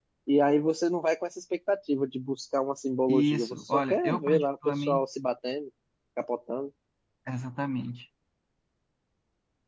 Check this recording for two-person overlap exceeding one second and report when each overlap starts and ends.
3.1-5.0

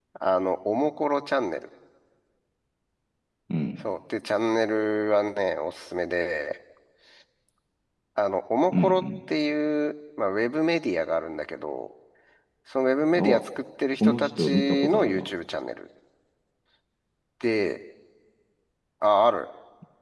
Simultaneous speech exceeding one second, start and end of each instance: 14.0-15.3

